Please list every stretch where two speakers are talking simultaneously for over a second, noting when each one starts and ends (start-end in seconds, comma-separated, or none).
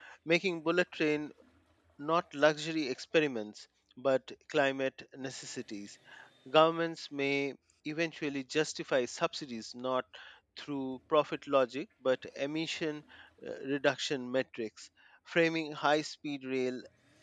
none